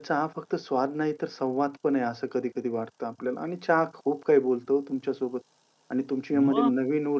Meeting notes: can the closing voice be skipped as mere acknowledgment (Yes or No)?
Yes